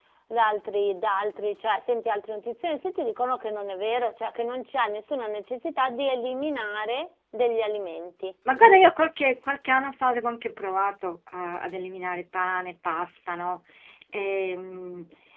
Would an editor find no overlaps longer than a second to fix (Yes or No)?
Yes